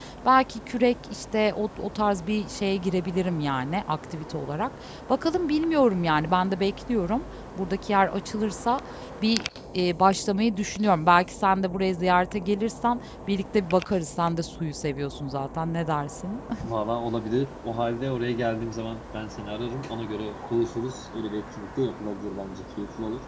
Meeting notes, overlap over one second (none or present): none